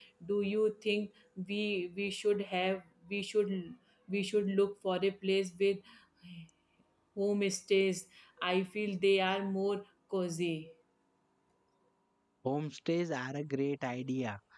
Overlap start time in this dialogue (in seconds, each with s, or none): none